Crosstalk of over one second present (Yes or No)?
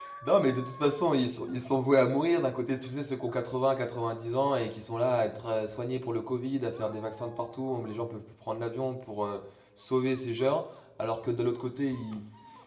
No